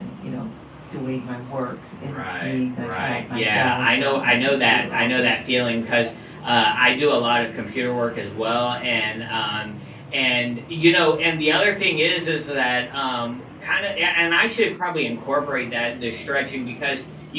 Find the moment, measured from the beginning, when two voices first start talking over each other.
2.0 s

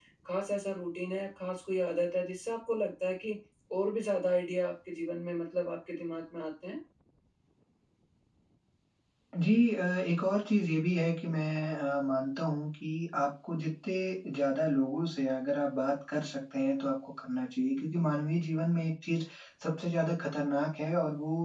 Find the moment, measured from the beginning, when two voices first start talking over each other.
none

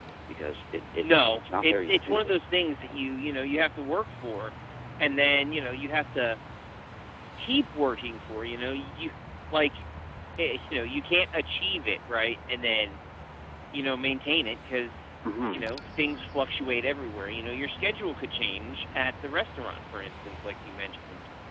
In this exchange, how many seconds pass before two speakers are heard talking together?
1.0 s

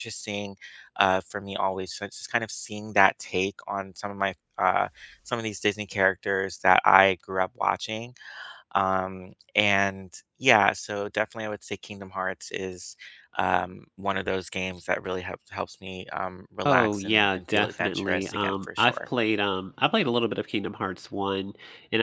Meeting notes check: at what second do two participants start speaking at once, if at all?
16.6 s

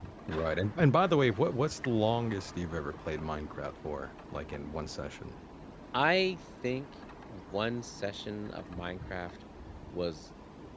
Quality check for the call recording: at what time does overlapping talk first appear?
none

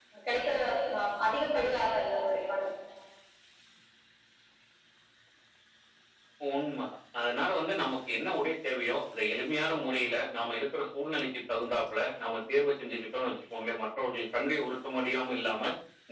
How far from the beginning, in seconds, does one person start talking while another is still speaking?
none

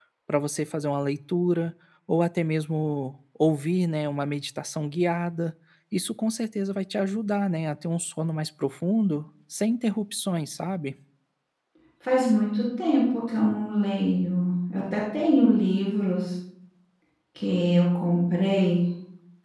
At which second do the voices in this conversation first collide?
none

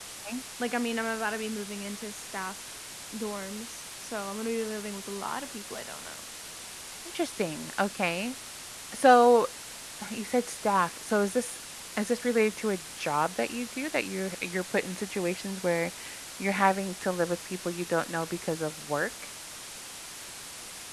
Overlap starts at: none

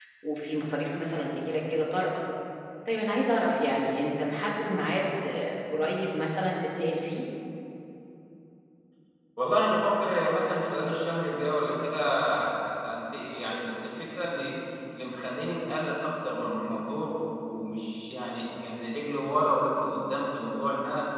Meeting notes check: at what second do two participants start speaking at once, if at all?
none

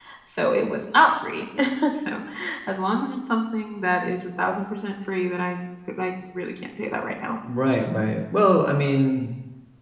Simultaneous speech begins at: none

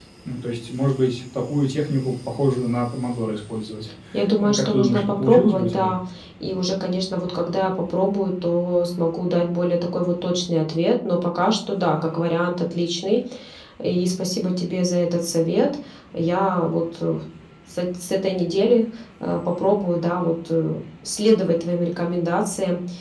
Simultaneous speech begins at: 4.4 s

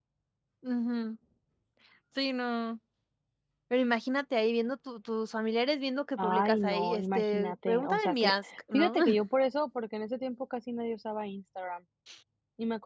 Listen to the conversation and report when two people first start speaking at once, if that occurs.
6.2 s

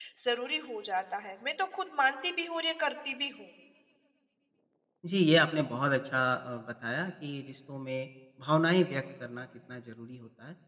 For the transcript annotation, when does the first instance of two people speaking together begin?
none

